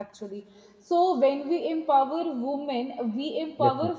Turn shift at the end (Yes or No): No